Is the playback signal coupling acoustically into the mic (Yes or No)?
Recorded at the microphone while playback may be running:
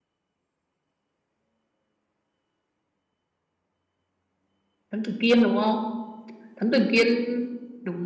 No